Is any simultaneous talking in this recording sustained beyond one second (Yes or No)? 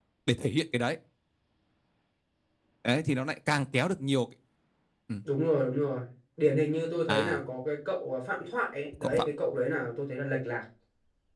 No